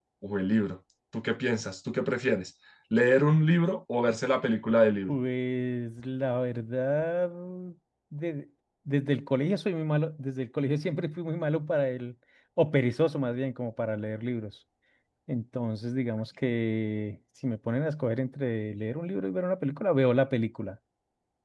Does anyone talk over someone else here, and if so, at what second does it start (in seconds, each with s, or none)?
none